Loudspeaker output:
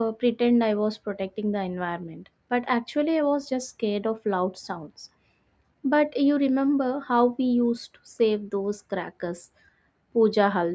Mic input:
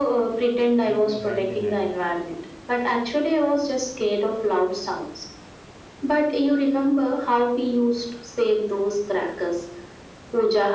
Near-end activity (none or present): present